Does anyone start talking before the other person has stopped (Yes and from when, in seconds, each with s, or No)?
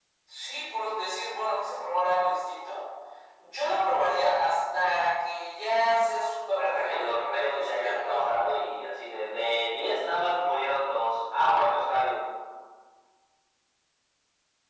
Yes, from 6.6 s